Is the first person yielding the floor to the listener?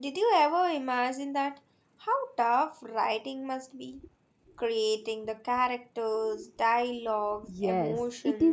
Yes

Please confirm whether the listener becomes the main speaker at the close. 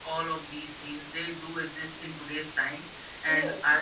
No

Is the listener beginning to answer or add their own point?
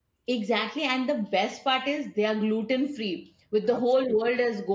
No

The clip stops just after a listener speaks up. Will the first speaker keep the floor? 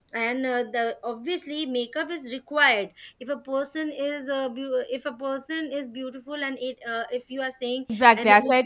No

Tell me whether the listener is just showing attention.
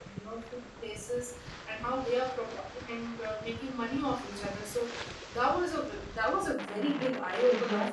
No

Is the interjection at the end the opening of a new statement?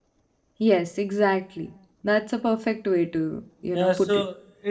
Yes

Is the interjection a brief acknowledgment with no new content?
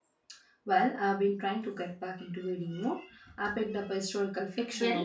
Yes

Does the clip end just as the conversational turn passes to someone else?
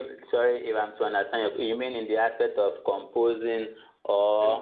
Yes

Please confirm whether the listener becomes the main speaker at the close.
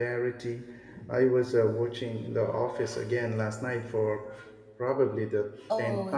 Yes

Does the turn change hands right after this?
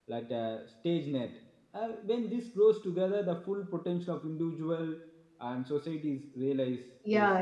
Yes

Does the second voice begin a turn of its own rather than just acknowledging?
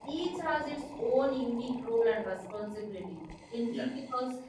No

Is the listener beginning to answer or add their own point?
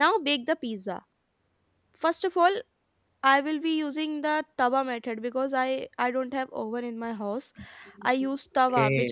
No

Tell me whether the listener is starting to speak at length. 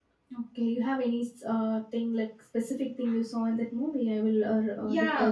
Yes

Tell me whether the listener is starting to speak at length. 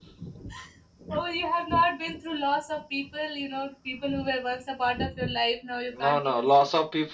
Yes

